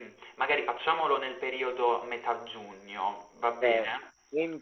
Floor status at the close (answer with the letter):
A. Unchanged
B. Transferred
B